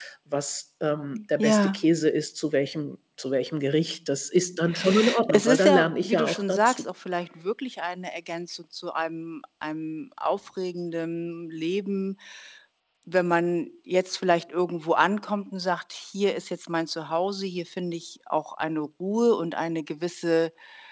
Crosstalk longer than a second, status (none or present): present